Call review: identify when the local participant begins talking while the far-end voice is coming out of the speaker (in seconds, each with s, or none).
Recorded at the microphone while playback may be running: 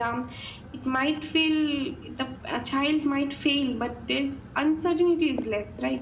none